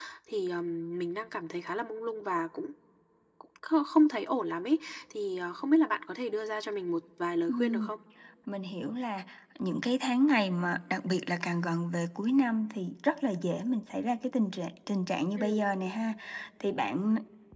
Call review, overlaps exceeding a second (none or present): none